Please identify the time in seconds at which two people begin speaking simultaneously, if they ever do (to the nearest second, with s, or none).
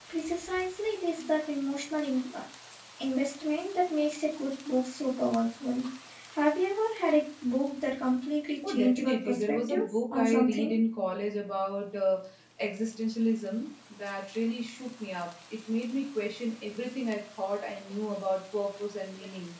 9 s